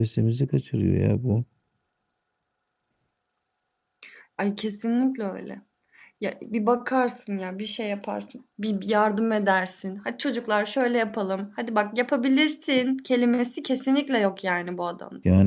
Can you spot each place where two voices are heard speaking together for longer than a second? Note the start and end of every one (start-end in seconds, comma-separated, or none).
none